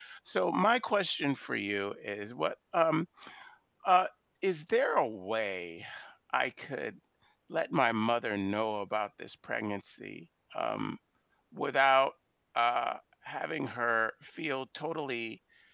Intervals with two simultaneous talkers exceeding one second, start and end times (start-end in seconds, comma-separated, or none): none